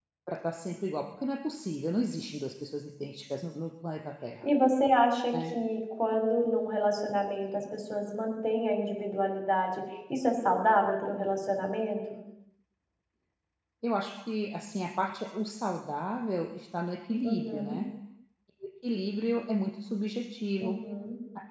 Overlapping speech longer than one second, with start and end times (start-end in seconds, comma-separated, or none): none